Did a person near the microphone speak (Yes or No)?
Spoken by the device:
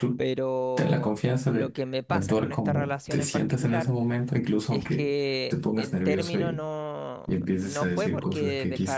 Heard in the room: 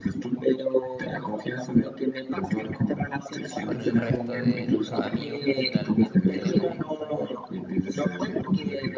Yes